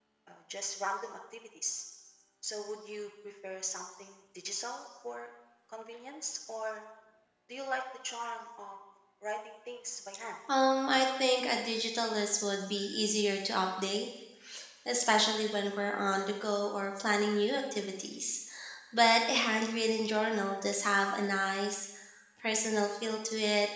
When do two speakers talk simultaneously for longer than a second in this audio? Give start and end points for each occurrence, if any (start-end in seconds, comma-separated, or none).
none